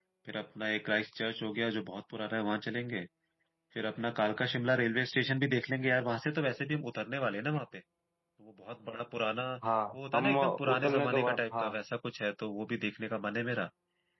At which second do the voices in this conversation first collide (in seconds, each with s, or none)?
9.9 s